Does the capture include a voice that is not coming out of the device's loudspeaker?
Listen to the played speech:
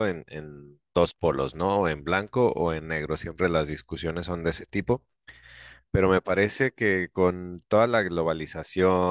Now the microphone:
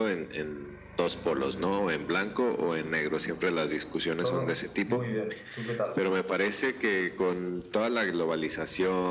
Yes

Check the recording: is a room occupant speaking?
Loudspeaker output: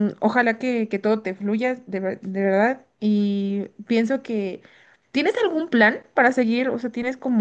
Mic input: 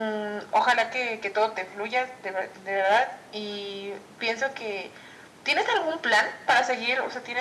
No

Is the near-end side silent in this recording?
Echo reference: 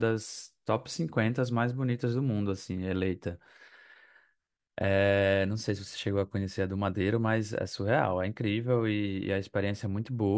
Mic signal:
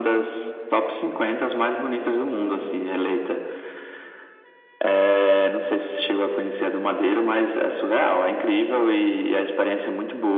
Yes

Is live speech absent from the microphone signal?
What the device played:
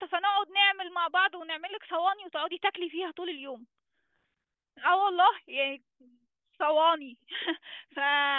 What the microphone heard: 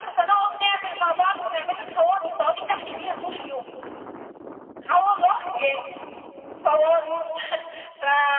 Yes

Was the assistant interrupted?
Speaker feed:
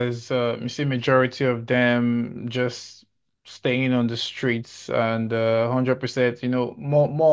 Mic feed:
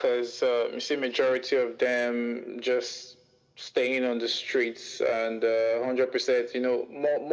No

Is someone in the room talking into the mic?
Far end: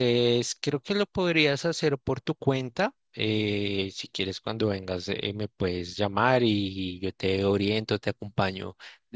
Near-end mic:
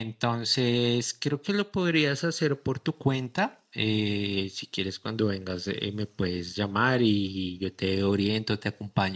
No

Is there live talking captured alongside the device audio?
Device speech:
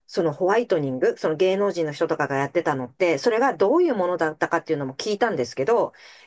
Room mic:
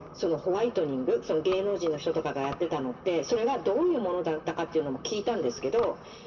No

